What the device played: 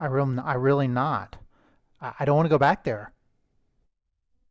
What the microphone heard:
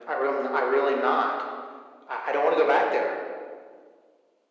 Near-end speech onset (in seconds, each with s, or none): none